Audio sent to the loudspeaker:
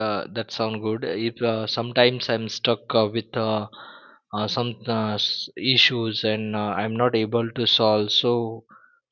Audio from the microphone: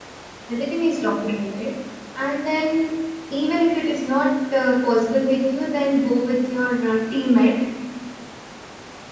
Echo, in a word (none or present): none